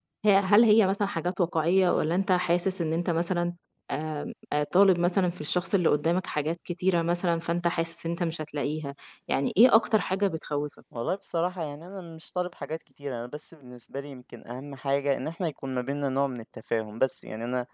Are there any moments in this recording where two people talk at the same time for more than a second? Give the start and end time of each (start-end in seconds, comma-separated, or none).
none